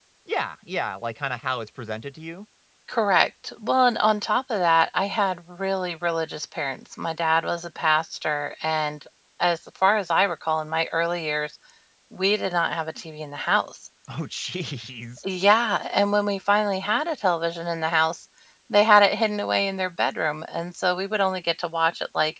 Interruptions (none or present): none